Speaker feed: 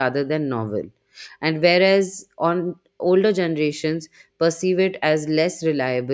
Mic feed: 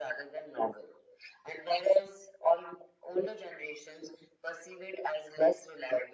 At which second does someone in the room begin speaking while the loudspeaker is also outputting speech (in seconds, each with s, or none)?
none